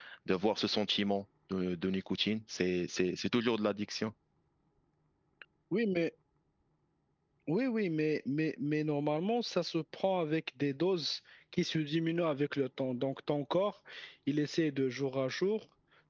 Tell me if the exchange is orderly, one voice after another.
Yes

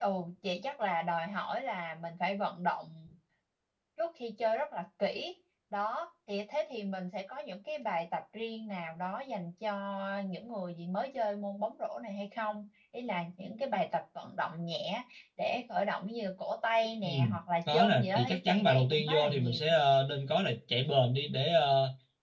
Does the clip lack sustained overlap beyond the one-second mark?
No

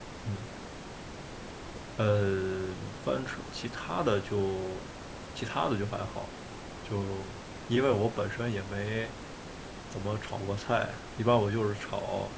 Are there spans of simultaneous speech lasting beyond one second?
No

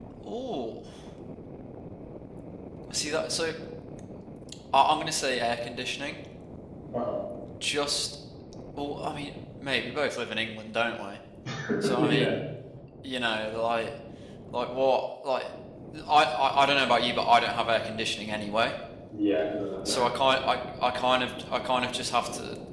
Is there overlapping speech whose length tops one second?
No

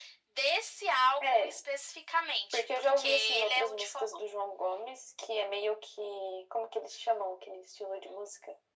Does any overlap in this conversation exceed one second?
Yes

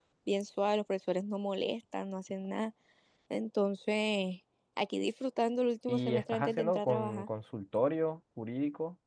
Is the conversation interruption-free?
No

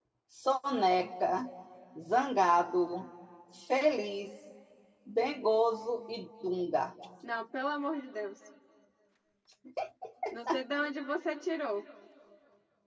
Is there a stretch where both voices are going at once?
No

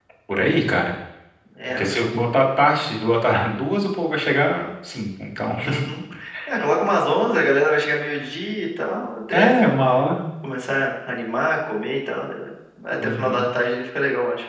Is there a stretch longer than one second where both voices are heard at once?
No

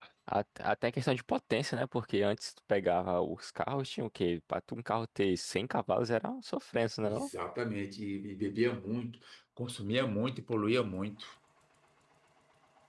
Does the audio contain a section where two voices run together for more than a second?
No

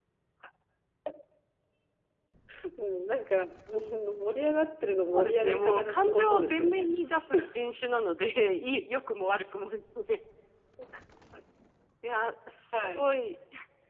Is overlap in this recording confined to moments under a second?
No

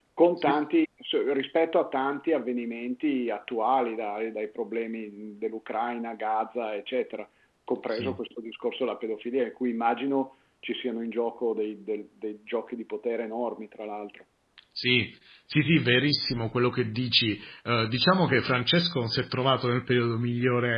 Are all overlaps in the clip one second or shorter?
Yes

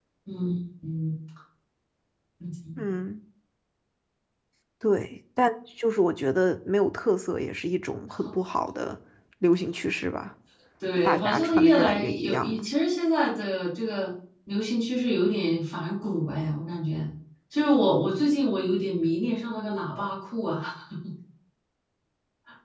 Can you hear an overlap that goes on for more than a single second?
Yes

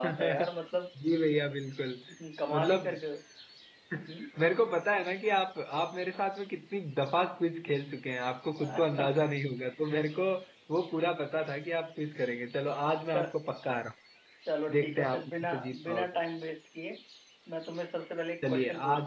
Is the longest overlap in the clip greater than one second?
Yes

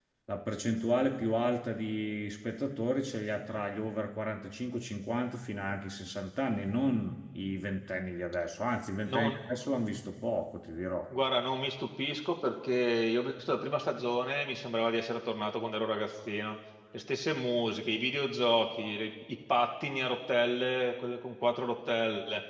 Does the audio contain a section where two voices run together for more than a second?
No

